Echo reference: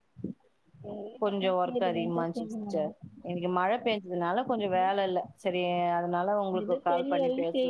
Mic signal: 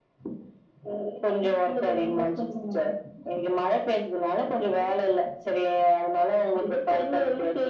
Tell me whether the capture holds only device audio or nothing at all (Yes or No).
Yes